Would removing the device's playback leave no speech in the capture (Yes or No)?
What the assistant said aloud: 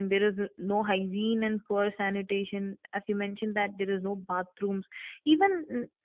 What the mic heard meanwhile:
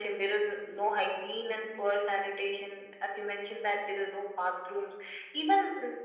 Yes